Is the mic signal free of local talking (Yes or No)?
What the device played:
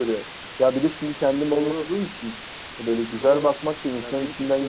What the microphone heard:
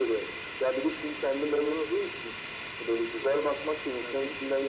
Yes